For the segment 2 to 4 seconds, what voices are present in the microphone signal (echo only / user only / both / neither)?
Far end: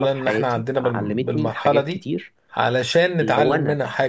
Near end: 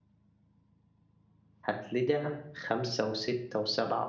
user only